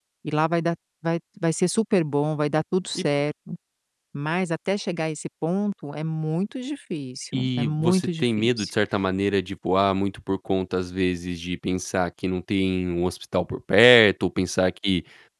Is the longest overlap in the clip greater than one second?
Yes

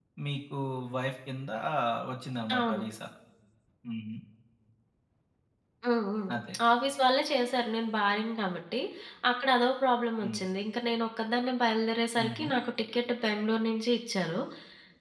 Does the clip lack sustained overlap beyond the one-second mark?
Yes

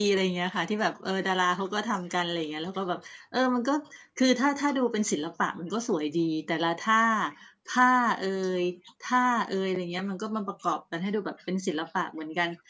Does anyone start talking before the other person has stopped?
No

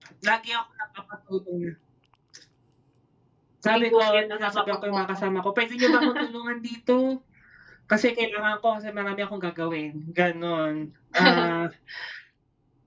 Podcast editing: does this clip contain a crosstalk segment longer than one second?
Yes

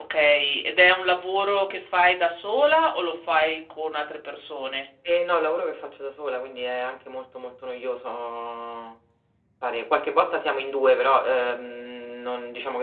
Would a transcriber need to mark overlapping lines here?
No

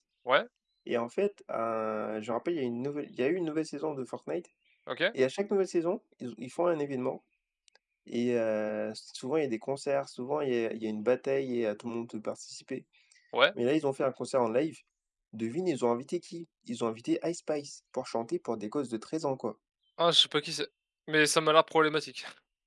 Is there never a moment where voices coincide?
Yes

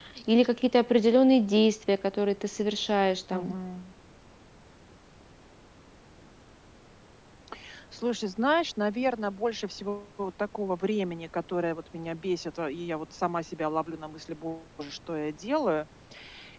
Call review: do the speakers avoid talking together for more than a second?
Yes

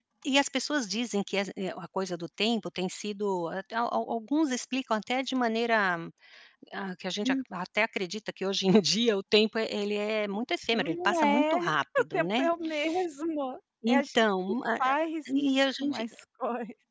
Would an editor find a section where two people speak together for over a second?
Yes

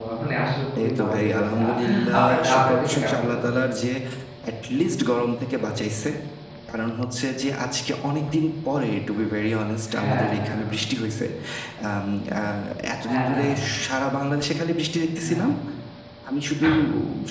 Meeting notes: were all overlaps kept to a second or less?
No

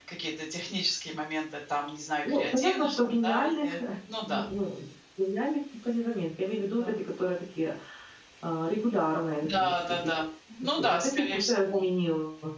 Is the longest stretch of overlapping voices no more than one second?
No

